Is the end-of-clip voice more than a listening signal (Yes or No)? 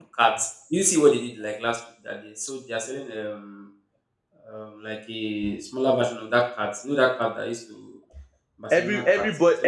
Yes